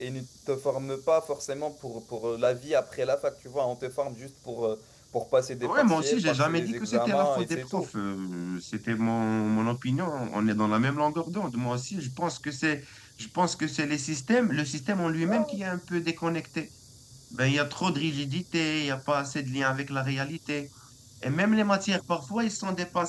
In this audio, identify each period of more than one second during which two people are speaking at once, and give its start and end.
5.6-7.9

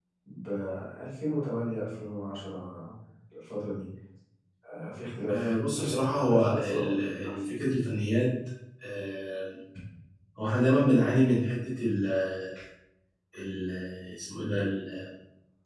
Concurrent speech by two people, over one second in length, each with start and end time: 5.3-7.5

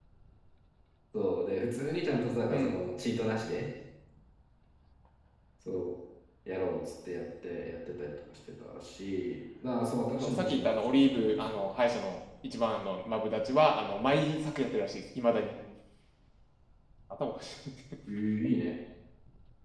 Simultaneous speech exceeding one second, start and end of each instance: 10.2-11.8

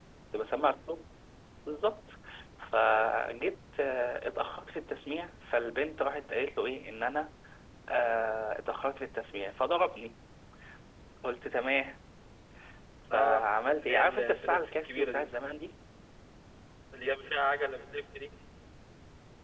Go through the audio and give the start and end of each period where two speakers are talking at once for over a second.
13.8-15.2

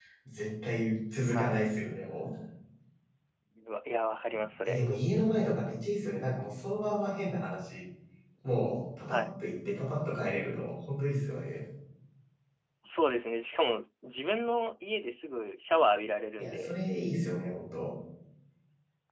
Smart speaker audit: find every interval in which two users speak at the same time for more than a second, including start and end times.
none

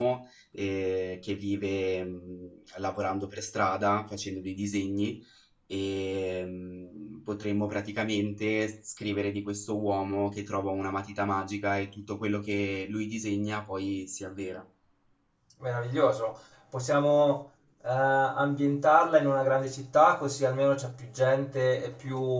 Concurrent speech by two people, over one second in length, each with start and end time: none

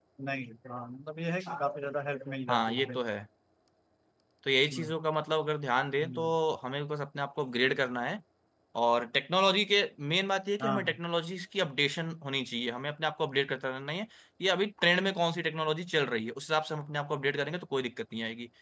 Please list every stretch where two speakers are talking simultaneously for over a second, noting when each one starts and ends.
none

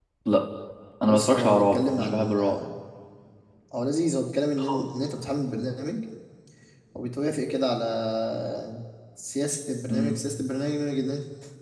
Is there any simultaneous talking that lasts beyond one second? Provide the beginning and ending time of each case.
1.1-2.5

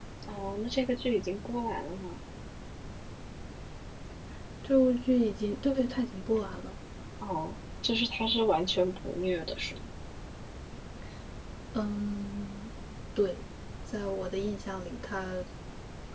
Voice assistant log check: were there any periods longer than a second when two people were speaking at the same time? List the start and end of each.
none

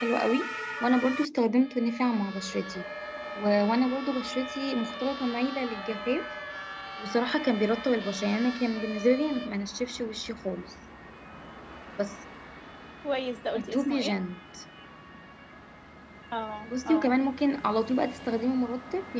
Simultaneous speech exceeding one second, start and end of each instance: none

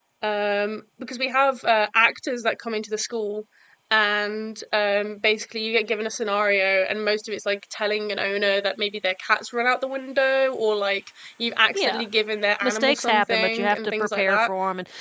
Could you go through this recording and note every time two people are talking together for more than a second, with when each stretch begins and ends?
12.6-14.5

